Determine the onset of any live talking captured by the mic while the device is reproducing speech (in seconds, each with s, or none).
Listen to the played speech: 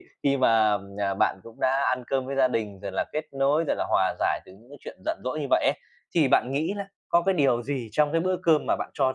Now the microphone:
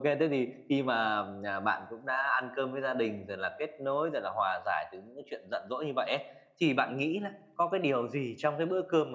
none